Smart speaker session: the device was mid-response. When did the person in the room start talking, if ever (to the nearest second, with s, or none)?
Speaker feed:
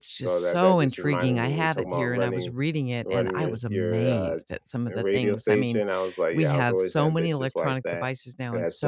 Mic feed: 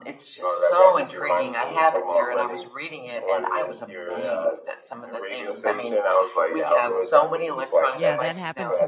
8 s